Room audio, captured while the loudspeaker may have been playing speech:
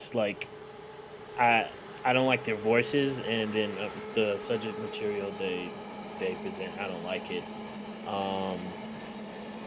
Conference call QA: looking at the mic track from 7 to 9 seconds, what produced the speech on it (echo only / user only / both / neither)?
user only